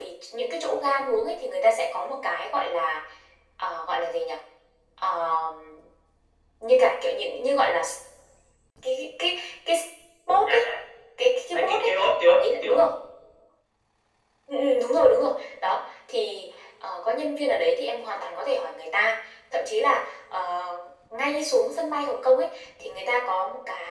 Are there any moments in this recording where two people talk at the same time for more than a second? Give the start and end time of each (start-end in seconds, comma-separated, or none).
11.5-12.8